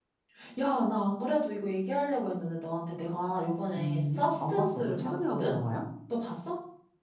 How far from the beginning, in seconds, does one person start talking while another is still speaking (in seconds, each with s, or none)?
3.7 s